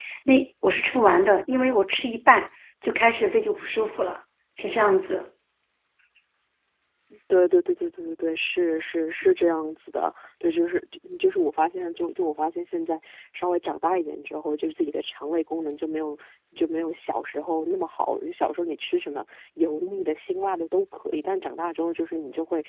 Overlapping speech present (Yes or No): No